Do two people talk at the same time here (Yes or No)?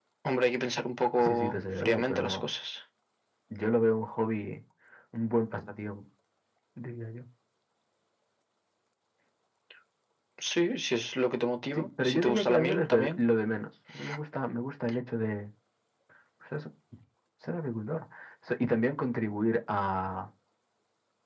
Yes